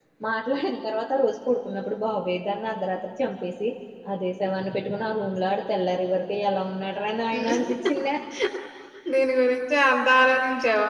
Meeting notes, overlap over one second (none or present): none